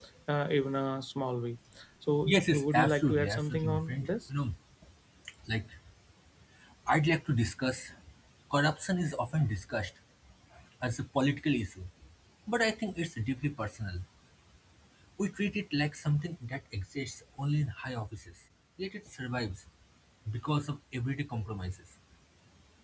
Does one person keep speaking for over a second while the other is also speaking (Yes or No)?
Yes